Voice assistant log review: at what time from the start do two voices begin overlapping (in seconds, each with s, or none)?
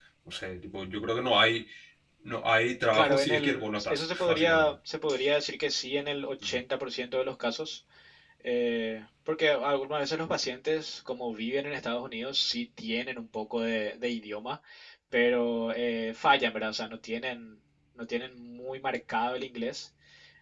2.9 s